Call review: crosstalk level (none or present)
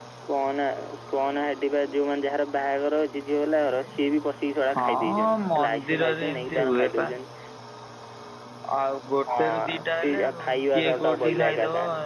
present